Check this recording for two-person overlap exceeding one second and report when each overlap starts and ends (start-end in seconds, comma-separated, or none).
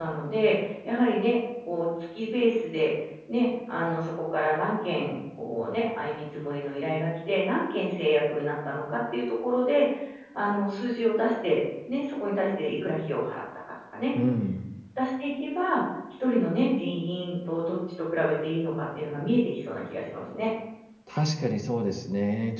none